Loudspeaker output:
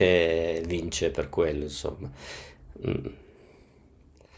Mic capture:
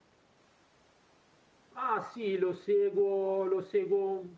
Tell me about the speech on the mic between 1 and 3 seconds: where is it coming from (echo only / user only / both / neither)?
user only